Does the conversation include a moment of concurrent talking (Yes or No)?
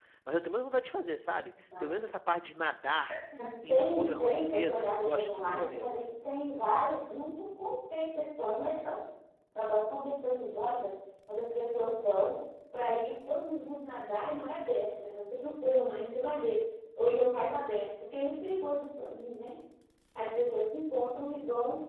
Yes